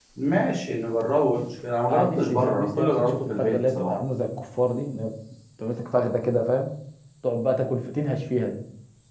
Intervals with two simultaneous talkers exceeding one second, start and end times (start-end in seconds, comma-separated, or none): 1.9-4.0